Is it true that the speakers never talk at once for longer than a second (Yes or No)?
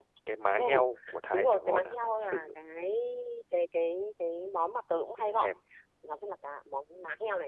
No